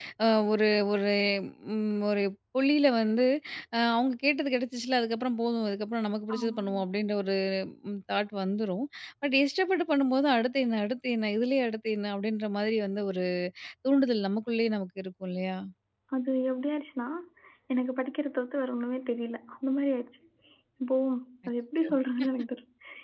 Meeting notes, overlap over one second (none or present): none